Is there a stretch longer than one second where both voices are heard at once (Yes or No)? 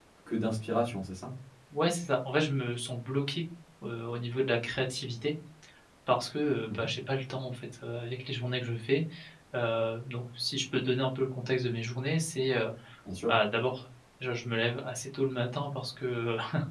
No